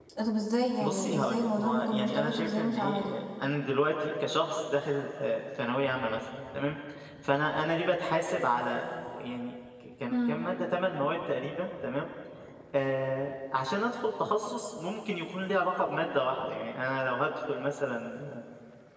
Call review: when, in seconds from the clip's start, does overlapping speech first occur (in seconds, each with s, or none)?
0.8 s